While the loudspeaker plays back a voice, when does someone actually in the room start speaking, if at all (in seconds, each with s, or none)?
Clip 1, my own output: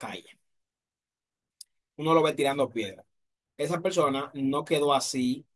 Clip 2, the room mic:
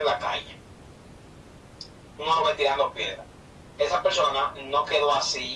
none